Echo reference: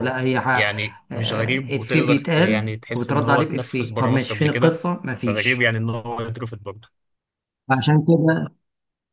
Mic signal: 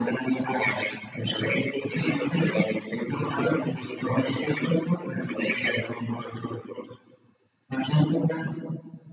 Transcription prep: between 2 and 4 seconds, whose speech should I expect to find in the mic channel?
echo only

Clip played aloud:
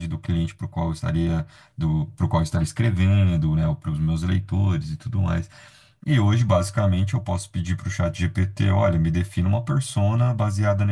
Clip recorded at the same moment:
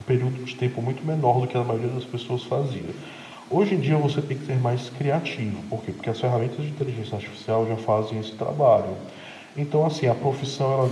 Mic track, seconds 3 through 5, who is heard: user only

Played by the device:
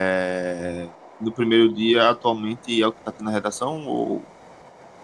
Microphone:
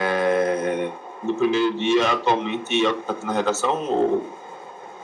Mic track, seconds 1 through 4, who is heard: echo only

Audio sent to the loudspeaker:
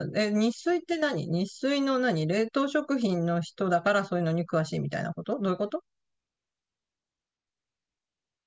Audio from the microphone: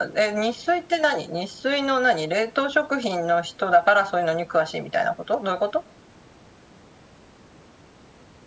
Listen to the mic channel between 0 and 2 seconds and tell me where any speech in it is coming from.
echo only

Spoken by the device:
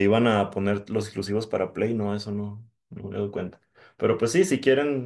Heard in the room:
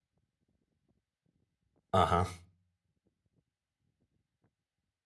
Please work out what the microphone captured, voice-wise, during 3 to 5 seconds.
neither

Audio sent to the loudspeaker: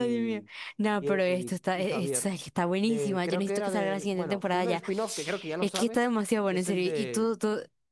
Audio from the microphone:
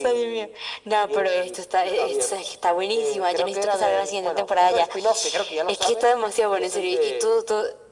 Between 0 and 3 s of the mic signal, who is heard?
echo only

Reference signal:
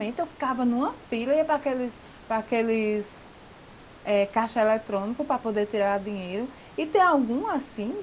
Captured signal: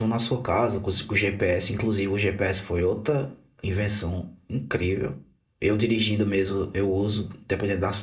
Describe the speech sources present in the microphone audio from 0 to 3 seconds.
user only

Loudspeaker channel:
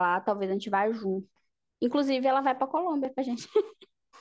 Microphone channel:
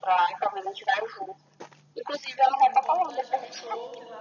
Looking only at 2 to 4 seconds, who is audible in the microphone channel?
both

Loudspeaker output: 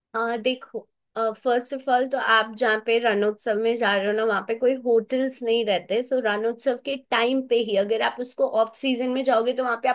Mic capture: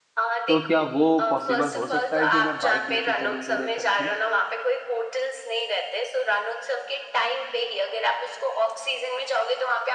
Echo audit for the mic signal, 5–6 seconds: echo only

